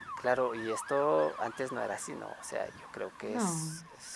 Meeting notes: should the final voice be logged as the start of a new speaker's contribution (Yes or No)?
No